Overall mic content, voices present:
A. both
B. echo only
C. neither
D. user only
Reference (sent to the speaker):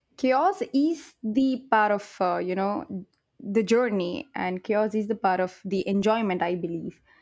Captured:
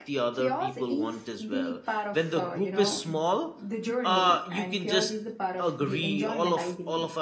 A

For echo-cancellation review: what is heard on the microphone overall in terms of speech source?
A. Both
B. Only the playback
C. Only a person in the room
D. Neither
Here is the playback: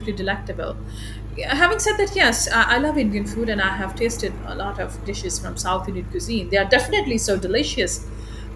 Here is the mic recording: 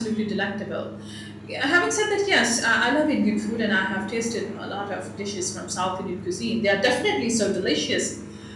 B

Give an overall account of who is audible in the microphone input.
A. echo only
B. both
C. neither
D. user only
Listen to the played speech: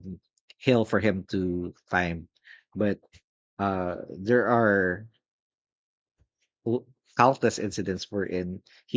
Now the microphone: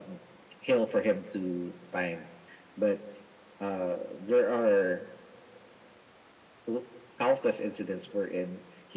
A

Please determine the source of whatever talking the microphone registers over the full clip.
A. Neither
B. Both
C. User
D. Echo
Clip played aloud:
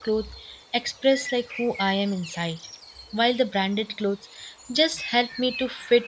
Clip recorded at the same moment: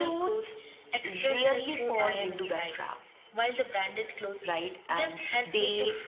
B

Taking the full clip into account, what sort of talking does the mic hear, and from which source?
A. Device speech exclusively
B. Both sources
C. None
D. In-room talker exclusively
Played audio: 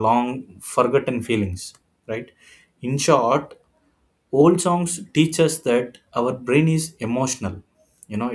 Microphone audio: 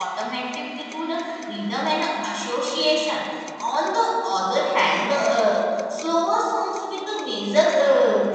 D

